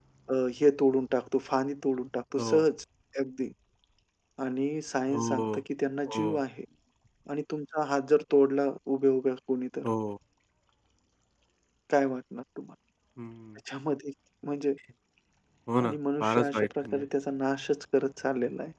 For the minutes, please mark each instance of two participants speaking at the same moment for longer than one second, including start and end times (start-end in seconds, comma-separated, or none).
15.8-17.0